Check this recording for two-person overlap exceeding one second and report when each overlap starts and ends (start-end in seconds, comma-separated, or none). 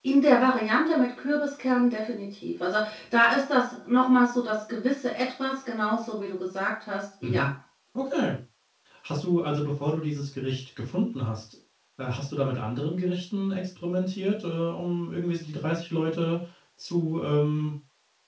none